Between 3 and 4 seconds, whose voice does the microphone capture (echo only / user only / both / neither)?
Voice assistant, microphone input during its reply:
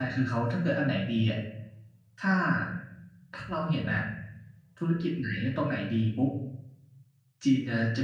user only